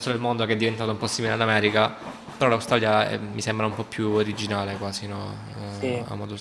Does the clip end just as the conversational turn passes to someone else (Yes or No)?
Yes